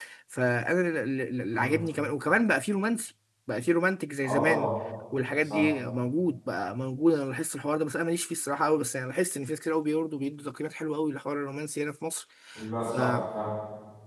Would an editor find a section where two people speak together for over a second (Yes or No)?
No